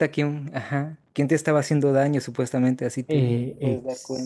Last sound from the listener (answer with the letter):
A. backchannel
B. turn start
B